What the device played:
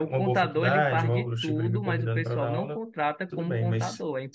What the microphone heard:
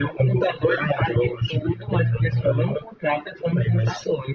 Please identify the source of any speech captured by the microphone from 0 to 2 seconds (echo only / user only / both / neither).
echo only